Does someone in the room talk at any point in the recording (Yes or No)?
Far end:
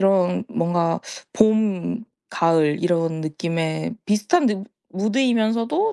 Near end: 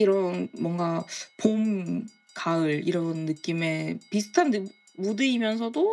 No